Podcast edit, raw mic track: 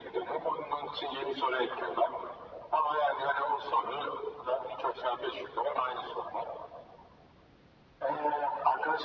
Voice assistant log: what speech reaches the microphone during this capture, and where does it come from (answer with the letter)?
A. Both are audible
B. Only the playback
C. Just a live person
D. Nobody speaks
B